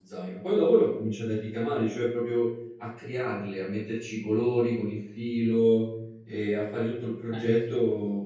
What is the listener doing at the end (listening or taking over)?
listening